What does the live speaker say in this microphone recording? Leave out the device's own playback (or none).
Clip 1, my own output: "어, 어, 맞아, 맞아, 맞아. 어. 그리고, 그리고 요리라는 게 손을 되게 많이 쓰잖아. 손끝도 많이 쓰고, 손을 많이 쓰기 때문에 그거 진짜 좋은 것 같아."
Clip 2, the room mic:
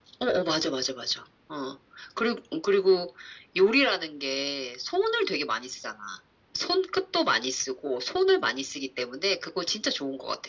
none